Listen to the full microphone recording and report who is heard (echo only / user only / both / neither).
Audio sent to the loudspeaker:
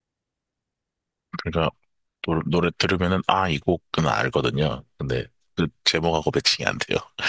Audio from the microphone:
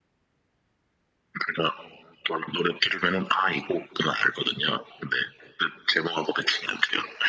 echo only